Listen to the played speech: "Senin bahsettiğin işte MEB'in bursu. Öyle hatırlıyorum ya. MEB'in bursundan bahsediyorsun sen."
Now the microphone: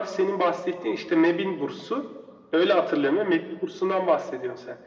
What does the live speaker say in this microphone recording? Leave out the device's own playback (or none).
none